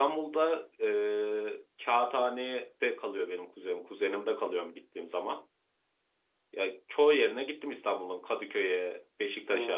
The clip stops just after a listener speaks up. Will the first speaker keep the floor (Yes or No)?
No